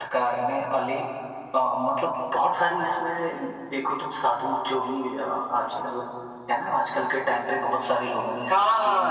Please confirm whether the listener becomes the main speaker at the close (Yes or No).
Yes